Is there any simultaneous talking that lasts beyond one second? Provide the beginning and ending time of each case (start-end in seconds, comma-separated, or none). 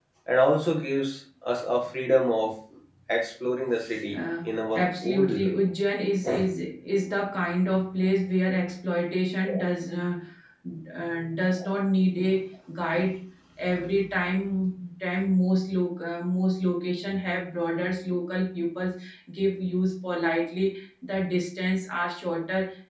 4.1-5.5